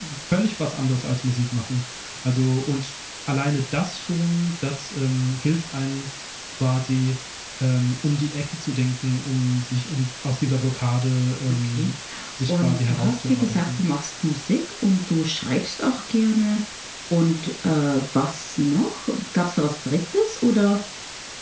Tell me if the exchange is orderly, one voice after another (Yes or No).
No